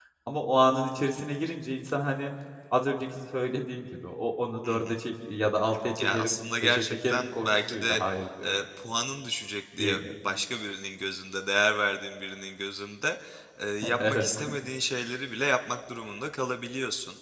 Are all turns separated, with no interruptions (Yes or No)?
No